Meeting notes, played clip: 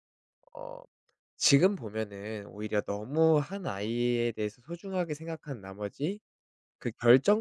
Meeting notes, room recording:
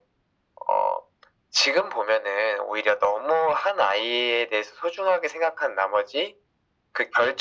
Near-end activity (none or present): none